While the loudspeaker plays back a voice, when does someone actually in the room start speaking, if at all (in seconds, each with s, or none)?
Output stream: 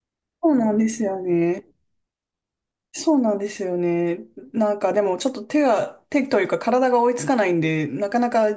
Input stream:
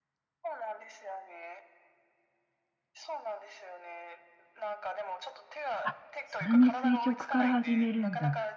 5.8 s